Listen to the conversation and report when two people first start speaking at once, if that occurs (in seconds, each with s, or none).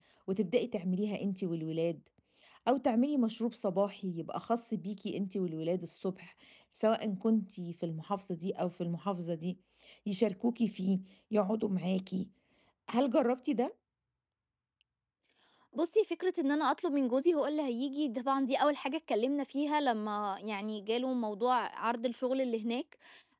none